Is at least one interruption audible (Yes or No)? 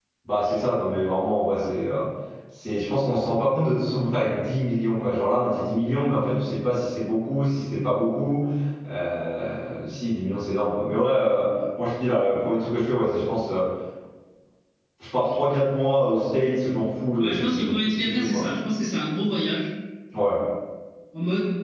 Yes